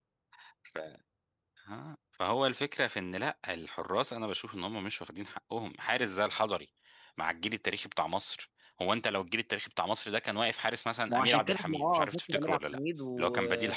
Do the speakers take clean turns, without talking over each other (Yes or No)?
No